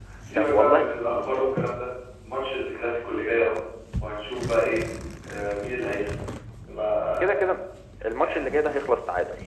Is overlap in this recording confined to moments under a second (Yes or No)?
Yes